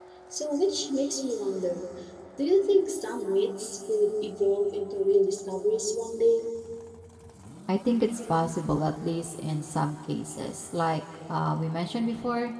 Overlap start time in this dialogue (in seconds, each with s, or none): none